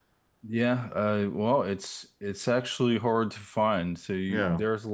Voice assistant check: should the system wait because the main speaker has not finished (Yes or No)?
Yes